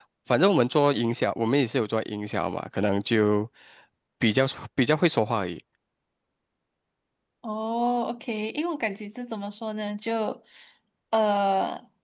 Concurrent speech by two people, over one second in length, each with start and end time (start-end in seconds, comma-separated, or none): none